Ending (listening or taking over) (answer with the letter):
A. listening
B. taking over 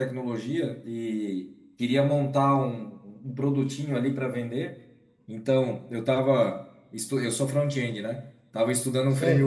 A